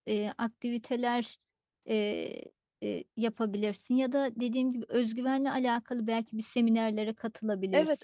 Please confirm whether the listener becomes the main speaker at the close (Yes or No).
Yes